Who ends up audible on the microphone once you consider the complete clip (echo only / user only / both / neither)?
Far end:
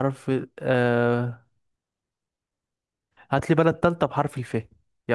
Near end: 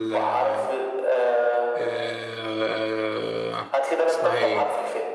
both